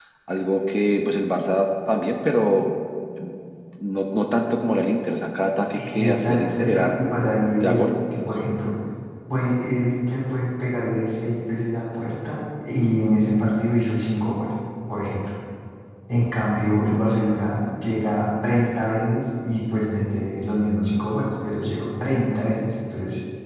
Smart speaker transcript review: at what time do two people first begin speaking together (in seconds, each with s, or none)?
5.7 s